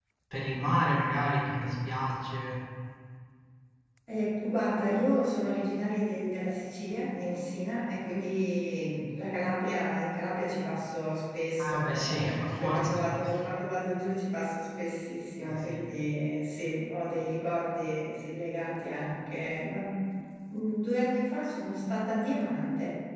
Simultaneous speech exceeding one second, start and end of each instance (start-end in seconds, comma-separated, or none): 11.6-13.0